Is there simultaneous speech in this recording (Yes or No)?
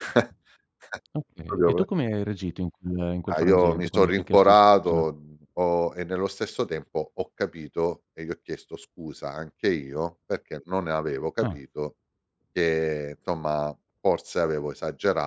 Yes